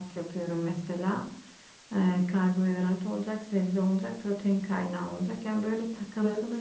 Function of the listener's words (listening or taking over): listening